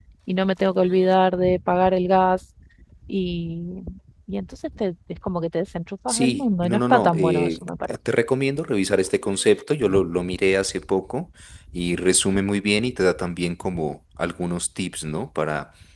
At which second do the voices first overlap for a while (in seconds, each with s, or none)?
6.1 s